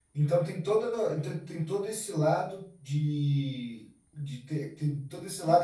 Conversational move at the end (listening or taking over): listening